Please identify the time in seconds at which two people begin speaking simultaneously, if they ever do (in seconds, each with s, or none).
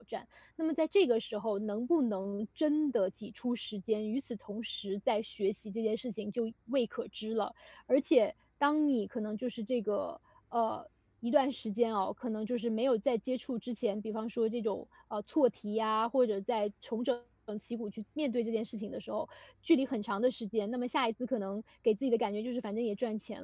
none